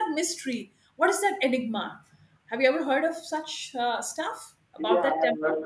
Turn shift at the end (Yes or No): Yes